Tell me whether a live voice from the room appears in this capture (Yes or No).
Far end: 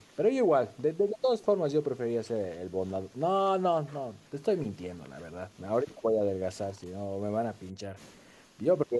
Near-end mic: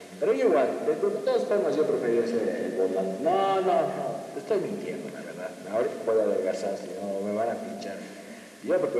No